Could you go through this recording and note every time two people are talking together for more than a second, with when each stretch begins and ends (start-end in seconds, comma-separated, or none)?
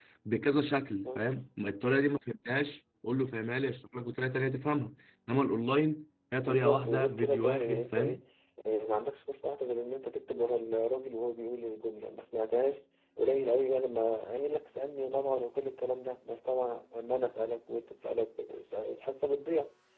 6.4-8.2